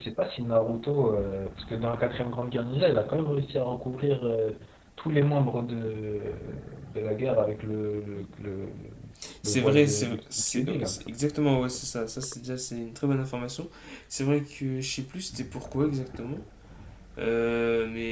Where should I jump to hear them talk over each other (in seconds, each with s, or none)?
9.4 s